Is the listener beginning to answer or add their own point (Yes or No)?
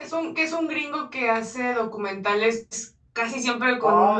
Yes